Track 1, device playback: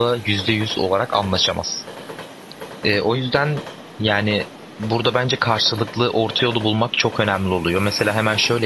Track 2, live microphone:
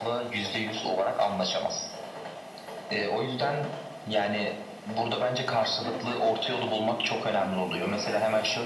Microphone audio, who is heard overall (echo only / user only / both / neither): both